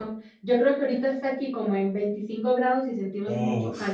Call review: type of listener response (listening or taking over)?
taking over